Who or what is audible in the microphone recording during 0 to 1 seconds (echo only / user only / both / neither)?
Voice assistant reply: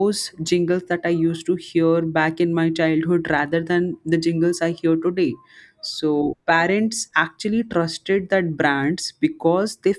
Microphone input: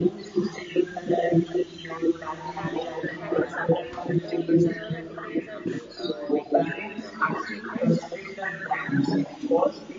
echo only